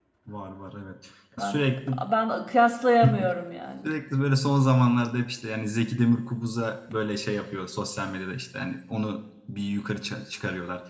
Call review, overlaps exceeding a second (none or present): none